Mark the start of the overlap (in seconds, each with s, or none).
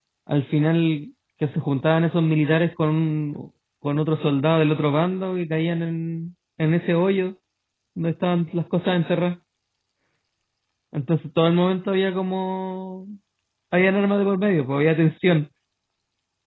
none